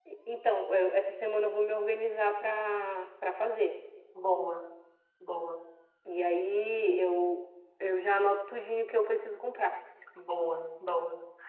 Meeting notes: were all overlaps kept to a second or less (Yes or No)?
Yes